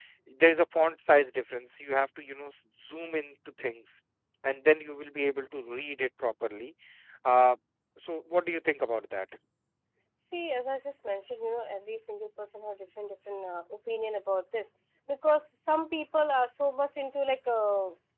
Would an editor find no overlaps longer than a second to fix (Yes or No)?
Yes